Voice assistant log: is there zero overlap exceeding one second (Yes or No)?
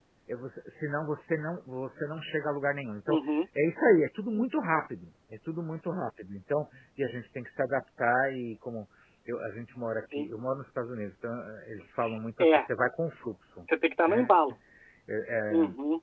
Yes